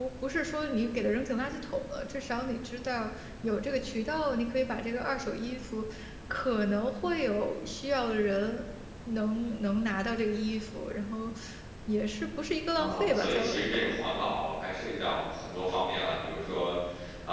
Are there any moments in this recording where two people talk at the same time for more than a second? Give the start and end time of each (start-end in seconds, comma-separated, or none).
12.8-14.0